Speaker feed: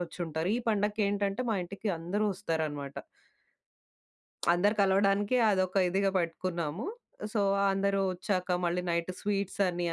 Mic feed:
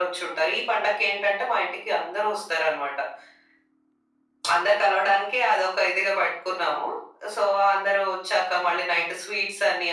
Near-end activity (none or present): none